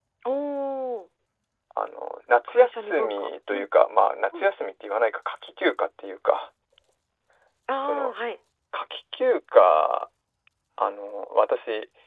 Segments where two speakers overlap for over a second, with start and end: 2.5-3.7

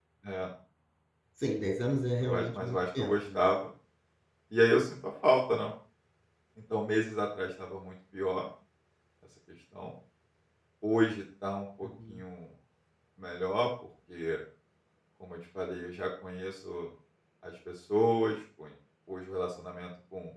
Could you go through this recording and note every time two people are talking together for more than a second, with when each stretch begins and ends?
1.8-3.4

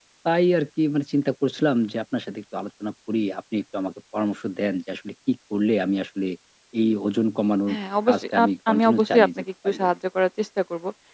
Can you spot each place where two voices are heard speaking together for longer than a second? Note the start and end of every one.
8.1-9.9

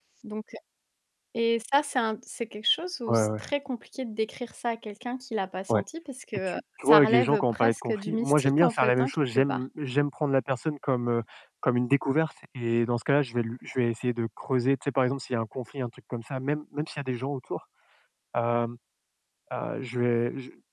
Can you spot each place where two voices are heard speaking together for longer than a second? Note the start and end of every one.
6.5-9.6

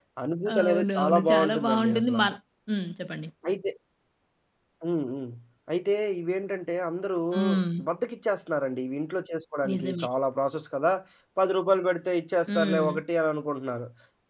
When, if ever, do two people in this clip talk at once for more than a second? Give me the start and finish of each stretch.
0.6-2.2

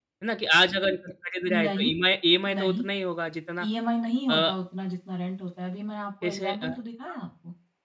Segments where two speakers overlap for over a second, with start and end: none

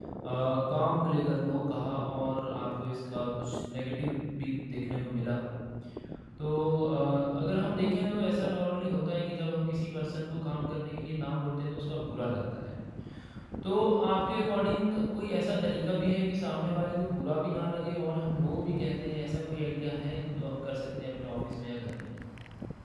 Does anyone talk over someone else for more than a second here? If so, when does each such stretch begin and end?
none

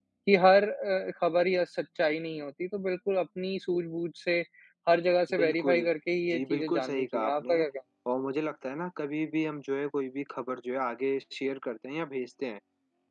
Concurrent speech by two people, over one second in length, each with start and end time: 6.3-7.6

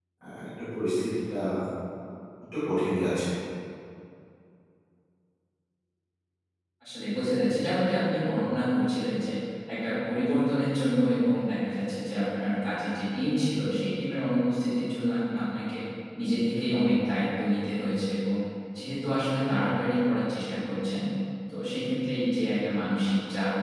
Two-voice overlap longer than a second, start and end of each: none

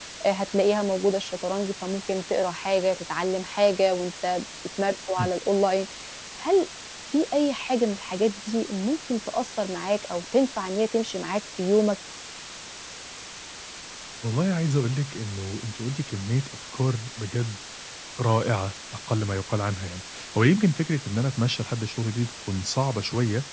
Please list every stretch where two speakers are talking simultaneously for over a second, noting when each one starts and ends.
none

